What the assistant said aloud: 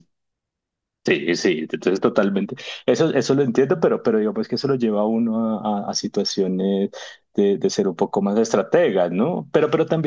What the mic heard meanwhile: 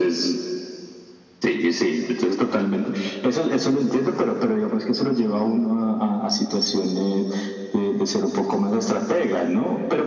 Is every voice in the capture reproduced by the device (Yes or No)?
Yes